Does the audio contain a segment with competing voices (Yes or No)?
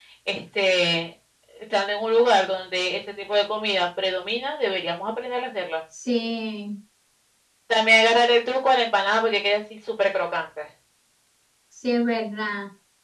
No